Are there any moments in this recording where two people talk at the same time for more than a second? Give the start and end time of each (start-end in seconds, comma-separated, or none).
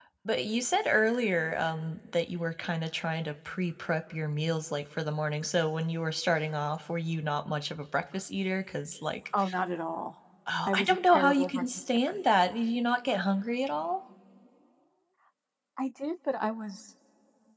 10.7-12.2